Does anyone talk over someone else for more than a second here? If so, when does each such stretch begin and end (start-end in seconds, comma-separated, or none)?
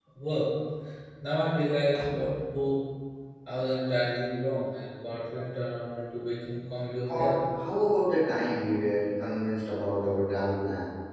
none